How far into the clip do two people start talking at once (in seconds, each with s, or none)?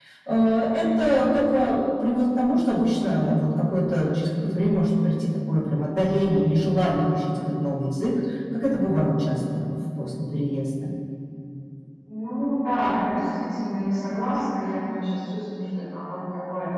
none